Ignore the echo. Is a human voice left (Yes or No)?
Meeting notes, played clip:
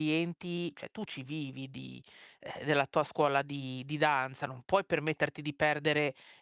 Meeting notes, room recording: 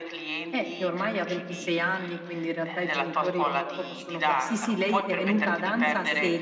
Yes